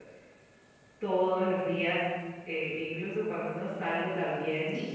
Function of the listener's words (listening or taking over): listening